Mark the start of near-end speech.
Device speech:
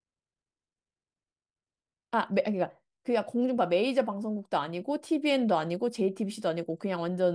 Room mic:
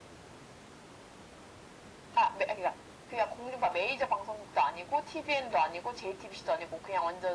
none

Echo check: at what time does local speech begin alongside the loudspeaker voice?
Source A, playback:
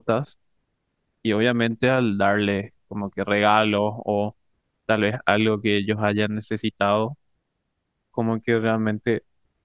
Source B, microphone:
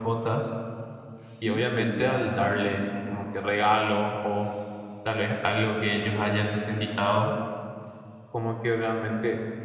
1 s

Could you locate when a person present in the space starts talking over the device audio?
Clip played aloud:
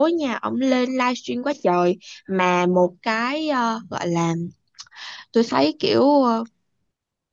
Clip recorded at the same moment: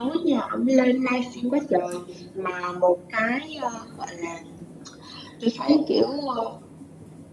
none

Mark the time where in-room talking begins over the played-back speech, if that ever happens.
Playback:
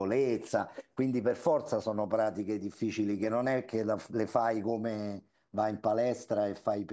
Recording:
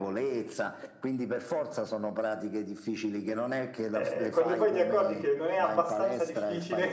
4 s

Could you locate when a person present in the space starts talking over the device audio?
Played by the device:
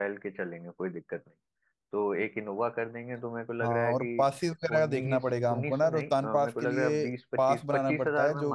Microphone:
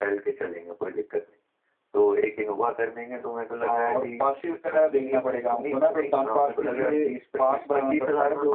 none

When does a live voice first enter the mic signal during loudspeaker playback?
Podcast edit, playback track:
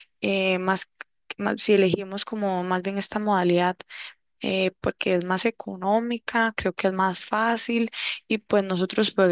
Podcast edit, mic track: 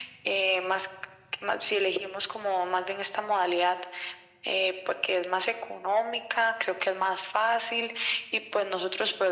none

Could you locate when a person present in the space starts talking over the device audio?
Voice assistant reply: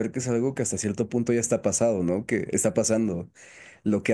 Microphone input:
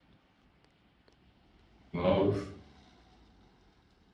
2 s

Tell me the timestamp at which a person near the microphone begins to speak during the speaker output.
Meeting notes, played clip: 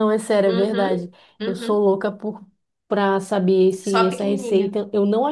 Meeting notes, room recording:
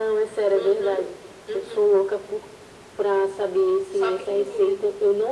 none

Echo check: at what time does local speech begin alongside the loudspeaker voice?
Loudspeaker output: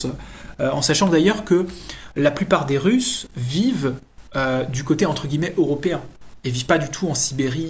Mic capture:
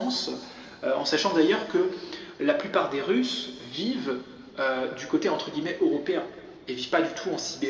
none

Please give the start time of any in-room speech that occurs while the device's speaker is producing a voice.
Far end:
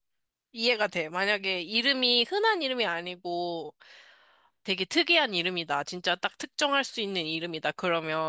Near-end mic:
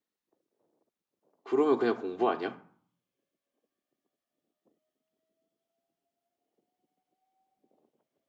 1 s

